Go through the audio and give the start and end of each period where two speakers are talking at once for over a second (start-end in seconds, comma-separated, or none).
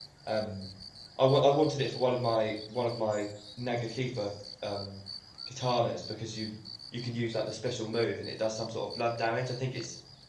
none